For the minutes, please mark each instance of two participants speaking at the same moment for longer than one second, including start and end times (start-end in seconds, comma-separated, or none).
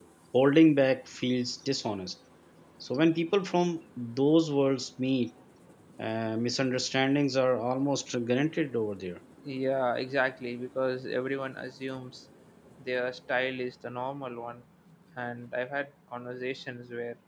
none